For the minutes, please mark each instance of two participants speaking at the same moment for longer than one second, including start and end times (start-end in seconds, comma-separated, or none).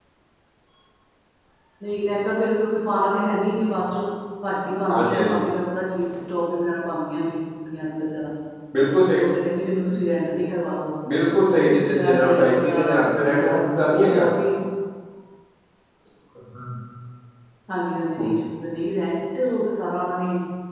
11.6-14.3